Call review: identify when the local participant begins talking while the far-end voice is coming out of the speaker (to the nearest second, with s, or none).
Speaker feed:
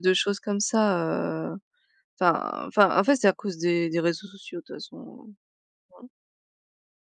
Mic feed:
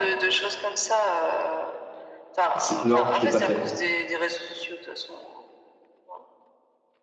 3 s